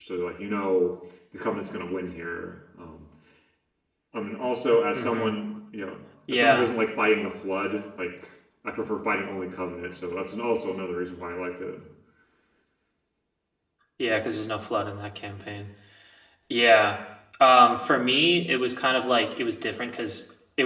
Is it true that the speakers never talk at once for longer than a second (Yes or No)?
Yes